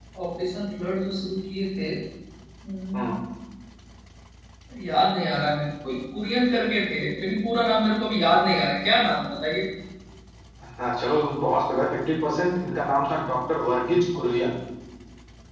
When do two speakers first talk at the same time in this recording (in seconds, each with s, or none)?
none